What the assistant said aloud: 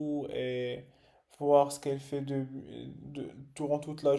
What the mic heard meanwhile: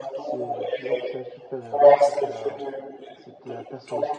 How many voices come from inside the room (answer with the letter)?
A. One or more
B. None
A